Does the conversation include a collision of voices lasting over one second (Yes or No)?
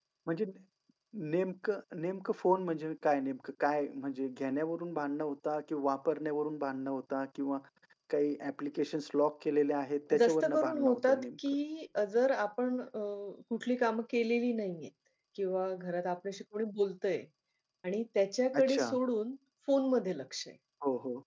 Yes